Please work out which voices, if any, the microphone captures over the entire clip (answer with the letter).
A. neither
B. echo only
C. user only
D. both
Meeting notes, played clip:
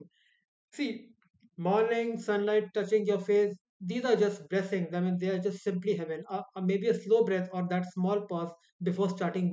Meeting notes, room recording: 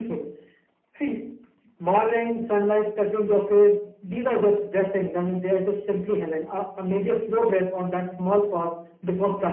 B